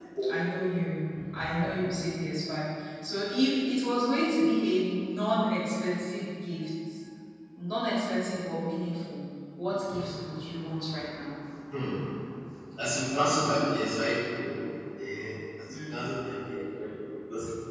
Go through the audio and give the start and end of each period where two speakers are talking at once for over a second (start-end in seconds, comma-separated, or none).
none